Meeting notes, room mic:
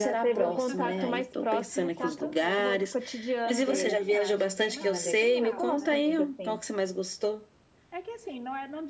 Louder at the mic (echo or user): echo